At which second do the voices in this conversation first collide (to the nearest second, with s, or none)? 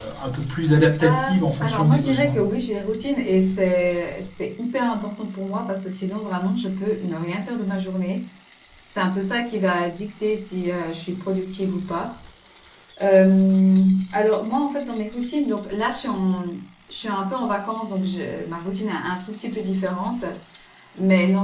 1 s